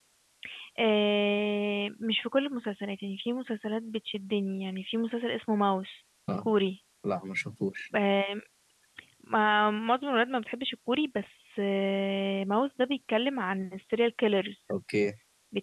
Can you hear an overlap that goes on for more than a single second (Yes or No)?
No